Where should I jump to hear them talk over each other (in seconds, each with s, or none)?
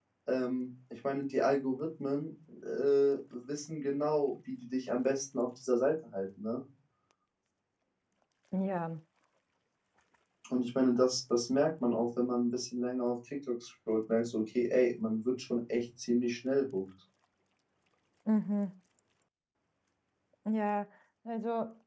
none